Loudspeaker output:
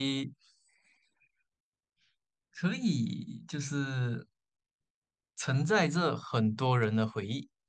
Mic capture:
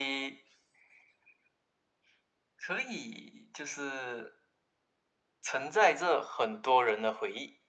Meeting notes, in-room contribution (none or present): none